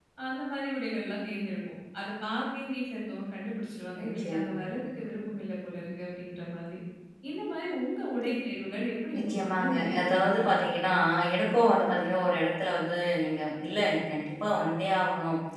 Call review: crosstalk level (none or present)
present